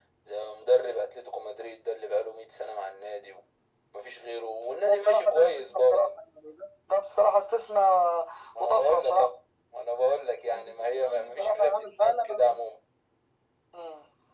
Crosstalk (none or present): present